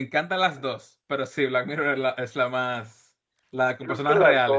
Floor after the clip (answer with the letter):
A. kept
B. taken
B